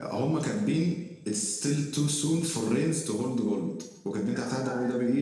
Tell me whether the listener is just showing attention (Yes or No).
Yes